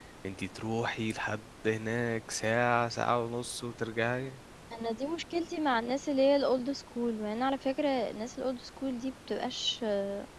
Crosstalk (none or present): none